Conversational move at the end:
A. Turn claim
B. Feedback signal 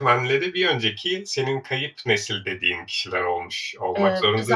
A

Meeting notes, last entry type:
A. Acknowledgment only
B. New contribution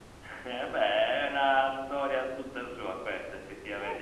B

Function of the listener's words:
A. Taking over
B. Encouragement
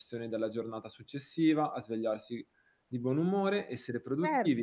A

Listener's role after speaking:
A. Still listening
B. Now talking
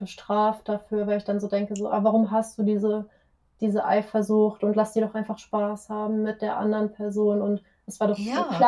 A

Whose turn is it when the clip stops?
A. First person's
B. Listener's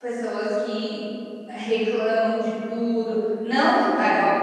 A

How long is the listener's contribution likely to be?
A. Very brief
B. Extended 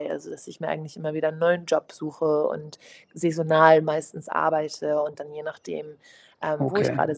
A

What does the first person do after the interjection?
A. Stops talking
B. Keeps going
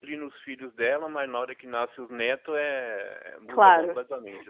A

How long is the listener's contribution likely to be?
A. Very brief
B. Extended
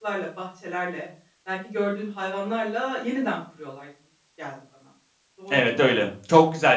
B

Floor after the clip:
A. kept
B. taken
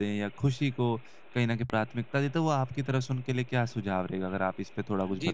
B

